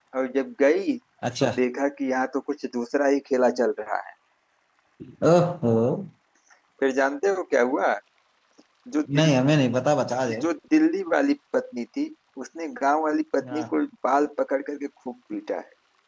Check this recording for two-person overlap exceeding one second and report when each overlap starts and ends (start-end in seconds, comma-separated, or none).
none